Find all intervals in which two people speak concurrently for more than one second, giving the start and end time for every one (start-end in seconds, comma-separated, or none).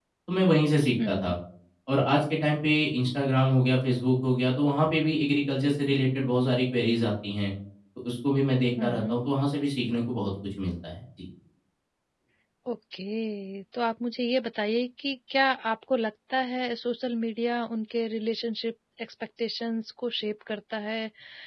none